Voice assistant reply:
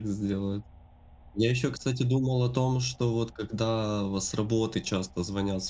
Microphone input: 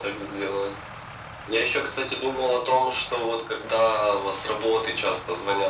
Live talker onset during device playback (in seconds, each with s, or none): none